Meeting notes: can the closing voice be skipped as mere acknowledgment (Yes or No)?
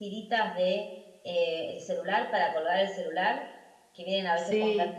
Yes